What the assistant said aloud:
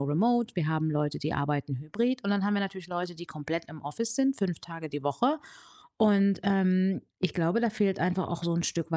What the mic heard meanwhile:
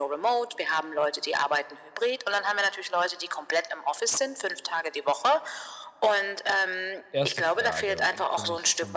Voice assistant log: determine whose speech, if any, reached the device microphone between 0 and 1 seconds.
echo only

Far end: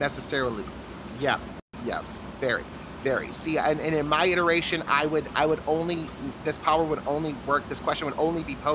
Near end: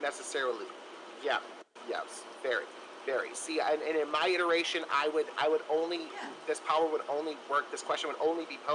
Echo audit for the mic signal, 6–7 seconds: both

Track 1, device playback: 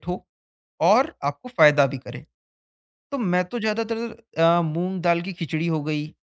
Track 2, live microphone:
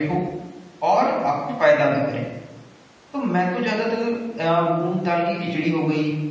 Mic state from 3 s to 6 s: echo only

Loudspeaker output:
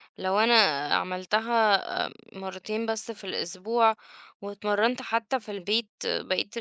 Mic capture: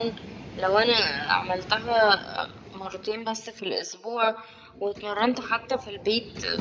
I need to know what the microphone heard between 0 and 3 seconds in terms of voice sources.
echo only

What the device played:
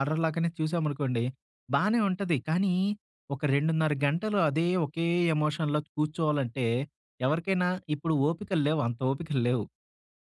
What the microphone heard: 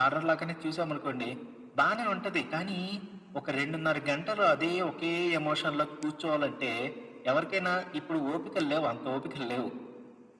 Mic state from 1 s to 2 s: echo only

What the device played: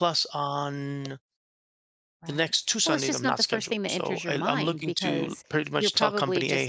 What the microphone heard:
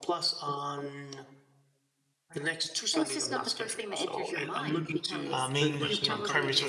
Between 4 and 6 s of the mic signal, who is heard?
both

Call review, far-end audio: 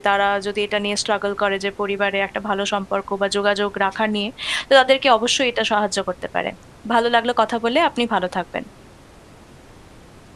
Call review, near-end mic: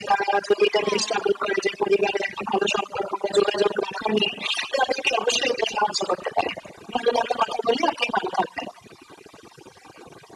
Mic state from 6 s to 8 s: echo only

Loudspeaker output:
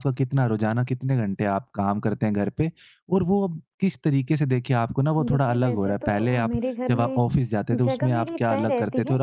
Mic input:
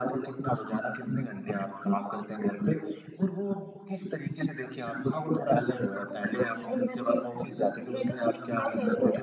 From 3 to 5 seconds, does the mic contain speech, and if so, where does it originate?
echo only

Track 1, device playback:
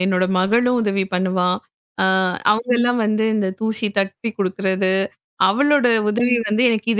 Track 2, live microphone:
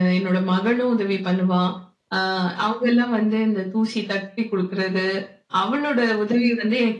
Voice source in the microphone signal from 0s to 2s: echo only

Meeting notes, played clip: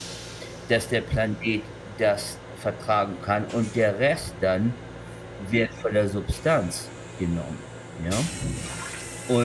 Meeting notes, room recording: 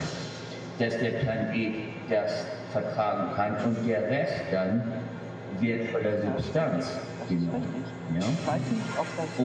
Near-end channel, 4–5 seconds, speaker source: echo only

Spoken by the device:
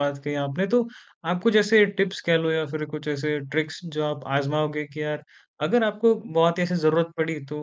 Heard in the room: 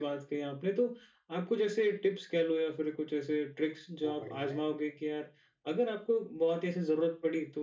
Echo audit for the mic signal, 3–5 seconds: both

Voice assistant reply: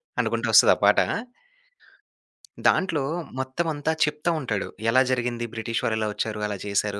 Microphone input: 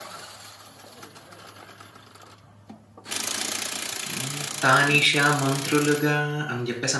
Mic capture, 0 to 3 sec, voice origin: neither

